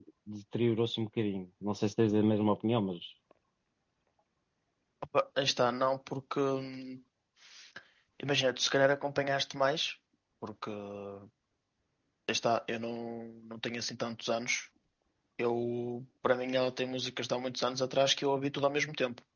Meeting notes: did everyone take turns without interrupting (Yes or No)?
Yes